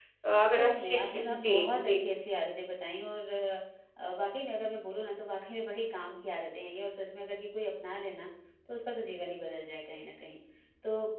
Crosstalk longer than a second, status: present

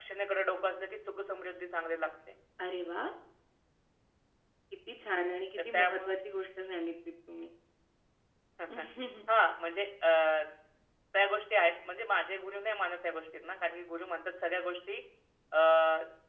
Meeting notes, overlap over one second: none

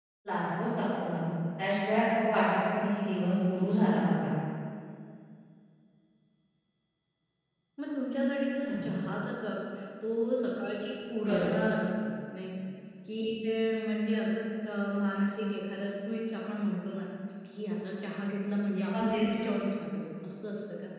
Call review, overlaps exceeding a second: none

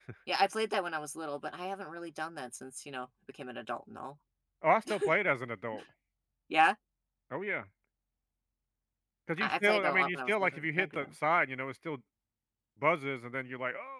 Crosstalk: present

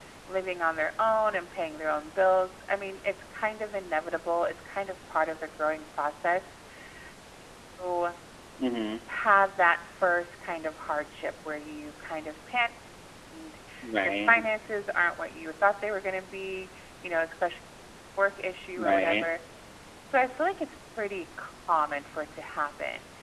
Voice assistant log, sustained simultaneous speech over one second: none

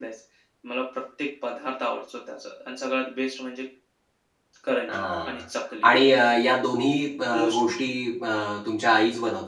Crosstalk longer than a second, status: none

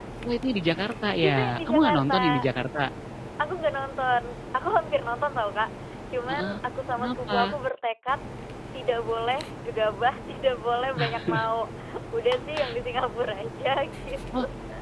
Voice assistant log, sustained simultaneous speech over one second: present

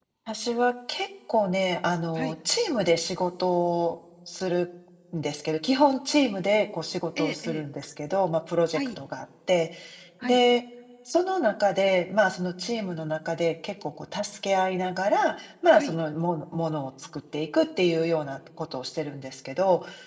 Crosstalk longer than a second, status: none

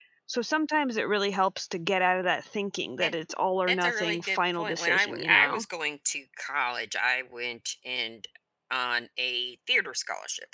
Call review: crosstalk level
present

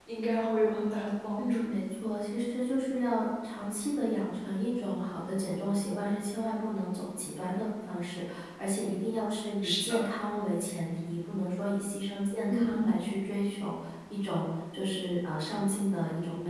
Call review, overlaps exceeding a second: none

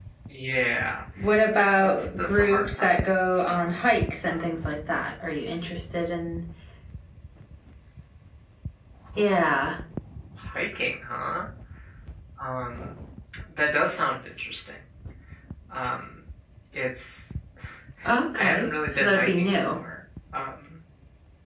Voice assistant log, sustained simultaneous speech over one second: present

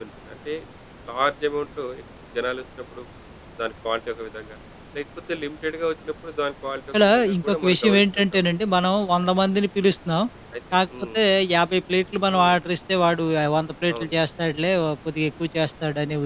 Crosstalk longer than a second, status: present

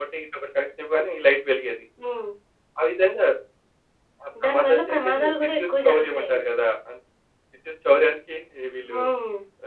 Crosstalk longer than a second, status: present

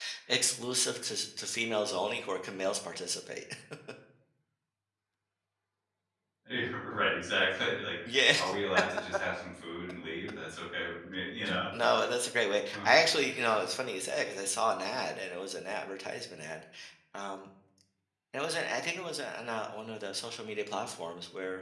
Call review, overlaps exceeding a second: none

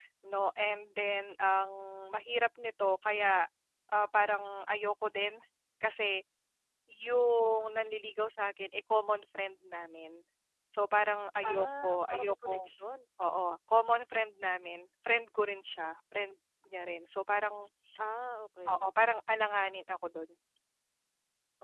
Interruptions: present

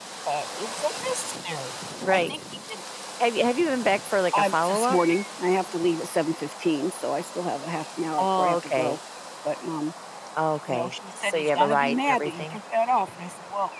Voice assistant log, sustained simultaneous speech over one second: present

